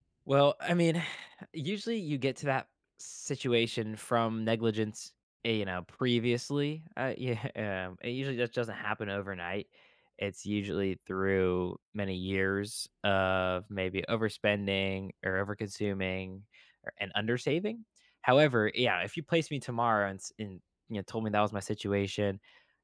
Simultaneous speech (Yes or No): No